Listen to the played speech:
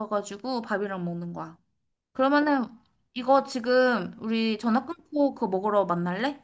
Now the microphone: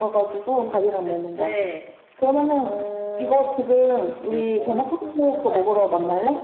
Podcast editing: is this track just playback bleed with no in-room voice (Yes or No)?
No